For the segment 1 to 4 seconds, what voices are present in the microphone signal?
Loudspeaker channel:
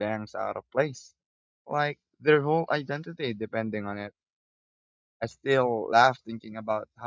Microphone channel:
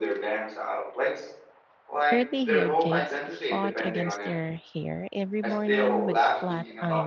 both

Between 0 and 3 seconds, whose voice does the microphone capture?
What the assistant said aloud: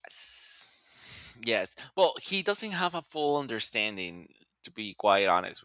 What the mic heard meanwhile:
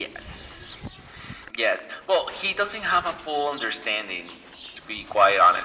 echo only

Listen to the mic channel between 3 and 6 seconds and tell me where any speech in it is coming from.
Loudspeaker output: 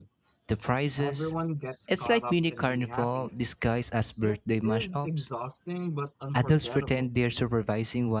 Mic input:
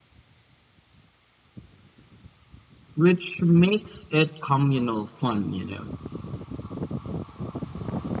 user only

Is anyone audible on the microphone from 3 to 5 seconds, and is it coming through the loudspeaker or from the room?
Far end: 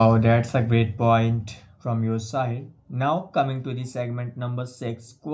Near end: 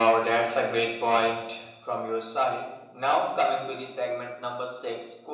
echo only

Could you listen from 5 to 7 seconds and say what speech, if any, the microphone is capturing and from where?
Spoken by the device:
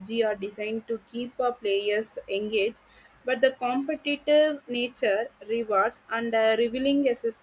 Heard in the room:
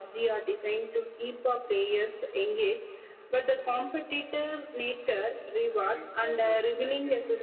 both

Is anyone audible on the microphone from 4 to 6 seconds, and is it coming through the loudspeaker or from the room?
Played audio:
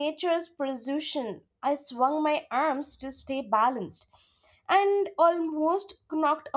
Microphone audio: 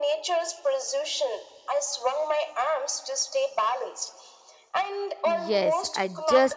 both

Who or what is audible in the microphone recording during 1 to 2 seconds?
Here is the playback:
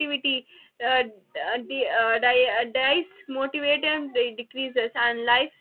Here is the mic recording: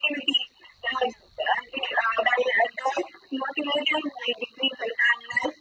echo only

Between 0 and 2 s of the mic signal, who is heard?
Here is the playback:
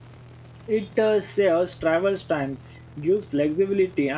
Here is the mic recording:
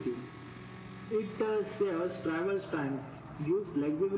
echo only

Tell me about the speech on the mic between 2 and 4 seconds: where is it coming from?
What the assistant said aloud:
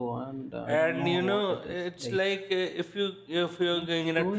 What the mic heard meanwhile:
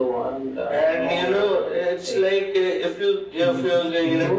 both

